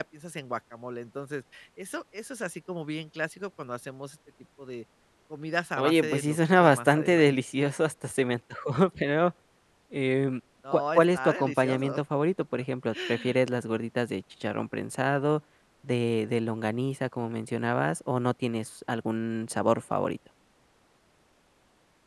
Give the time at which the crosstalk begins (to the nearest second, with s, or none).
6 s